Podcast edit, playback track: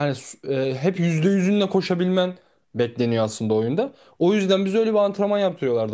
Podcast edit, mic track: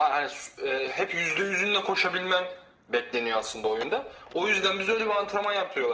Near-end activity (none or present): none